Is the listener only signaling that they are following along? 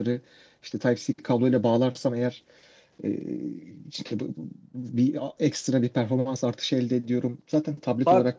No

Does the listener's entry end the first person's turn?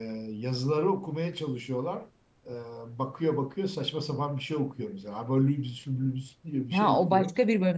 Yes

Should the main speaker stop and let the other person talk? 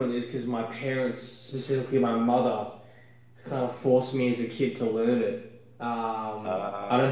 No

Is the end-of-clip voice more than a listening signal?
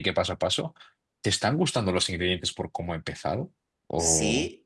Yes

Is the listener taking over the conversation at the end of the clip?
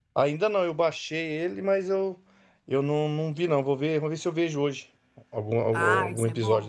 Yes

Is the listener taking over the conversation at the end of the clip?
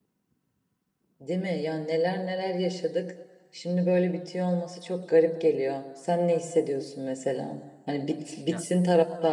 No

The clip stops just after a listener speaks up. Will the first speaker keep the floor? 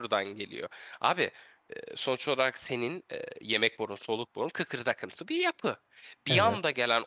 Yes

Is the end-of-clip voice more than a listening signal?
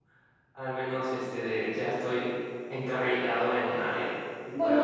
Yes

